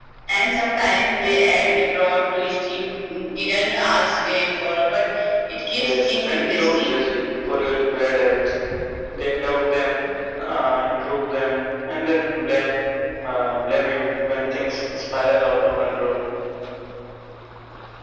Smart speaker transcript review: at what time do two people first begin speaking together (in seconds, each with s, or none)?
5.7 s